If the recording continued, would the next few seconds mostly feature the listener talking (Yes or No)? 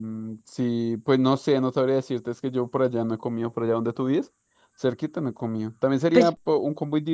No